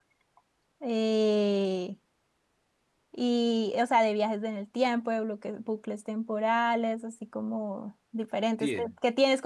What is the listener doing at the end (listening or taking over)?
listening